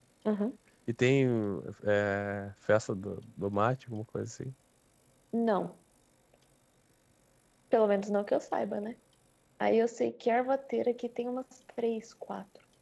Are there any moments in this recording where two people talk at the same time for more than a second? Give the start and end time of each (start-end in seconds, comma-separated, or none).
none